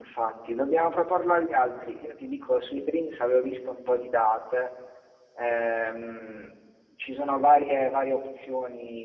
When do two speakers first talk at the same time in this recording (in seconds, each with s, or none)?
none